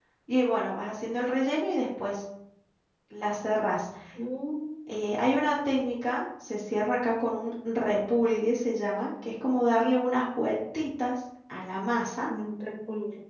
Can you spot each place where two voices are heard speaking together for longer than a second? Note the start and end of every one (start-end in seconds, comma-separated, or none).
none